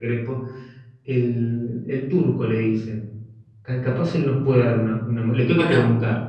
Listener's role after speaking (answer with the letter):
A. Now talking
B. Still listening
A